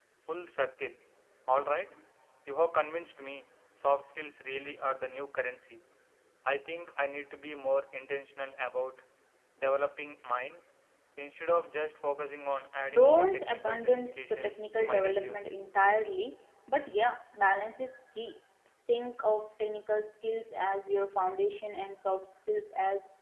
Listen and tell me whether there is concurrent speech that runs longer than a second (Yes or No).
Yes